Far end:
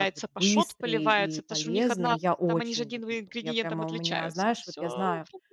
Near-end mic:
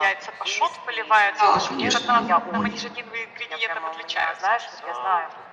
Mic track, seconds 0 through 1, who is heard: echo only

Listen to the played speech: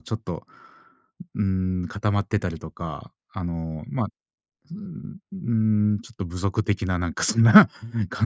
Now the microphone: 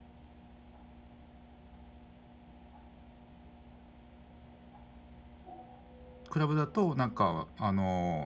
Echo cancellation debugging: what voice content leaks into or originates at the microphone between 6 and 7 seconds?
user only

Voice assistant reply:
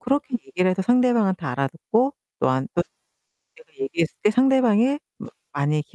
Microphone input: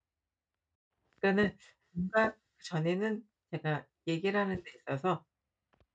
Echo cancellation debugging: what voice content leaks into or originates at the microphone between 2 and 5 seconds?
user only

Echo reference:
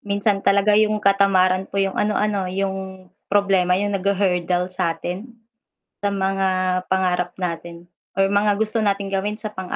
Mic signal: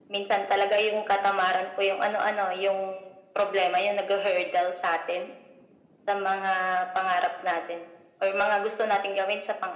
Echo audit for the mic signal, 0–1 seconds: echo only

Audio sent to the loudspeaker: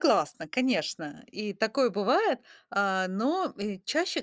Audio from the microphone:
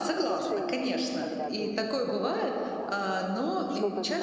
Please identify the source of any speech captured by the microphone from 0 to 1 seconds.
both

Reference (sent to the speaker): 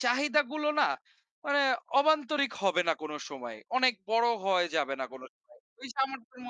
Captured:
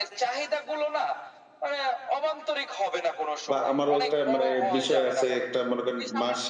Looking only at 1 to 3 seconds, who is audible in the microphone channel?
echo only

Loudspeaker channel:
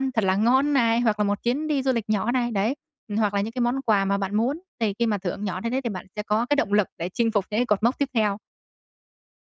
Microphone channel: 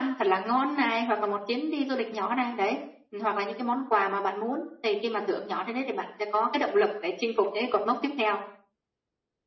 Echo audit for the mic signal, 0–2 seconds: echo only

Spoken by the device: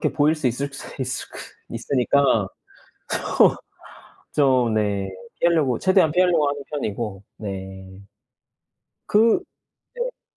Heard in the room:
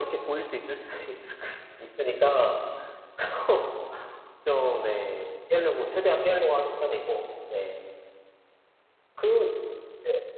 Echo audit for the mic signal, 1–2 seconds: echo only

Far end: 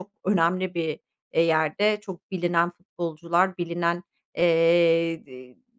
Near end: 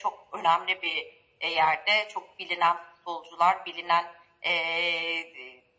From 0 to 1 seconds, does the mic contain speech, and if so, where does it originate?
echo only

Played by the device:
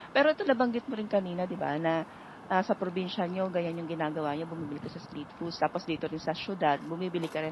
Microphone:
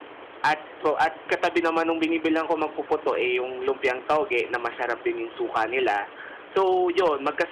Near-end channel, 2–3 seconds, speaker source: user only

